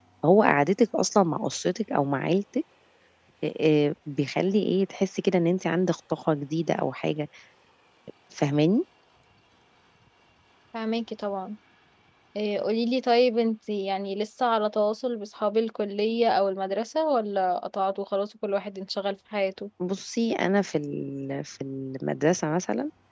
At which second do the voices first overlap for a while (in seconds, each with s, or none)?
none